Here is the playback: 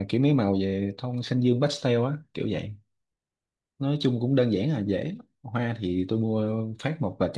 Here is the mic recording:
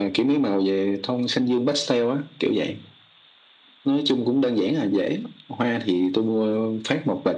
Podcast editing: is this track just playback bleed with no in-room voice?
Yes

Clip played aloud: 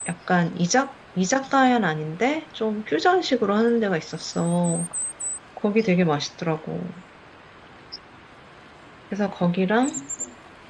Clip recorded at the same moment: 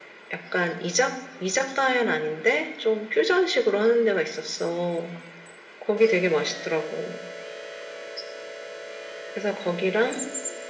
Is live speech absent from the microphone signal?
Yes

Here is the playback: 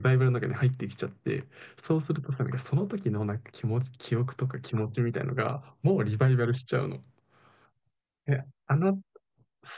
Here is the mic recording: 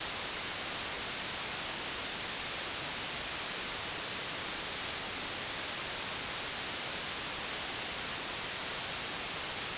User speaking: No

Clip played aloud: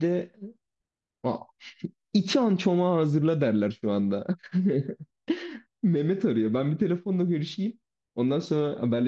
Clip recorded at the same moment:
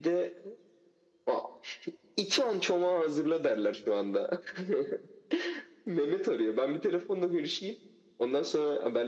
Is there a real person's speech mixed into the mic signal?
No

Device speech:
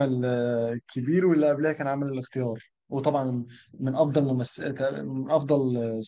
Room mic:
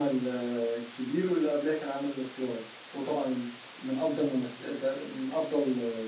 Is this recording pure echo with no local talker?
Yes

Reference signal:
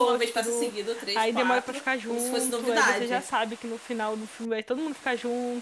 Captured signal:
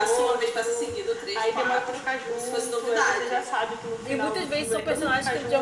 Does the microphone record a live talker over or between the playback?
Yes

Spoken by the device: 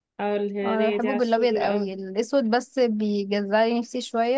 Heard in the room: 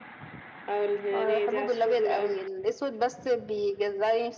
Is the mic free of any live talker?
Yes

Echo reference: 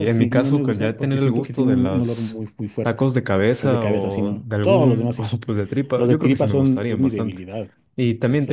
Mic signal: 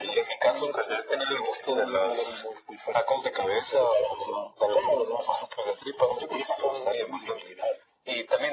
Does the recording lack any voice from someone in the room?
Yes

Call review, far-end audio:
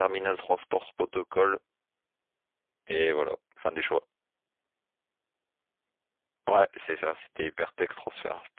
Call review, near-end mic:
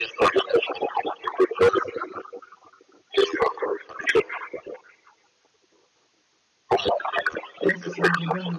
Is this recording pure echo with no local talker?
No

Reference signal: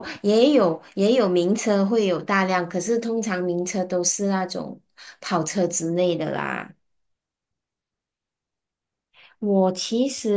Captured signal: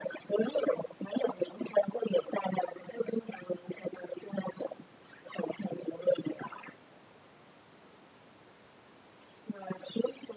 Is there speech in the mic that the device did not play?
No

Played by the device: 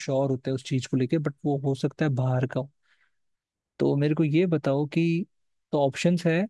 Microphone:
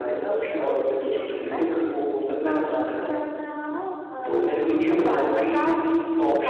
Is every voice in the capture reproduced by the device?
No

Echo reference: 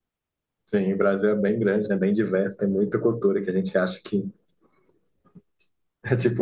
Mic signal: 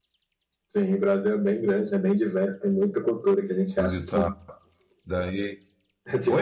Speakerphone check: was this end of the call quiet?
No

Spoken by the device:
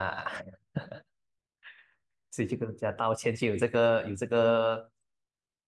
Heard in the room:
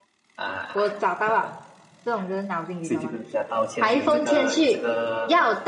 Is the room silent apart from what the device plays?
No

